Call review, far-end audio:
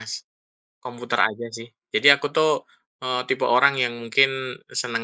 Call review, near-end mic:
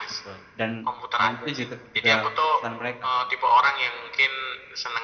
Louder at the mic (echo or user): echo